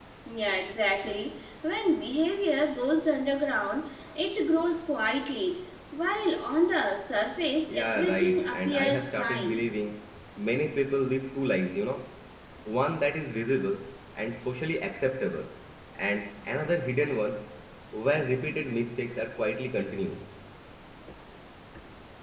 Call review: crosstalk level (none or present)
present